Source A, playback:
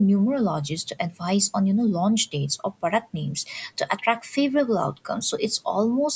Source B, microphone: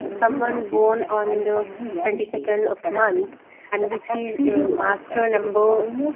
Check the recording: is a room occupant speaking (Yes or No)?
Yes